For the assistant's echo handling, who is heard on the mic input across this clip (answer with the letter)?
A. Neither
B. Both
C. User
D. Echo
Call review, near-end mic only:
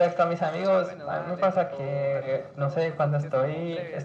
B